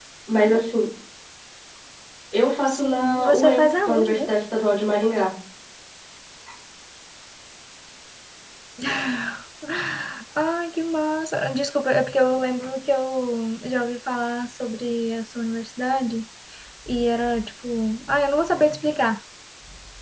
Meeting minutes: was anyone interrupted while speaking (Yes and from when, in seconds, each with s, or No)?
Yes, from 2.7 s